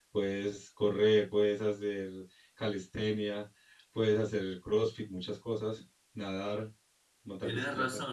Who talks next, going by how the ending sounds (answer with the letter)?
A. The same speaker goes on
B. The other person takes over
B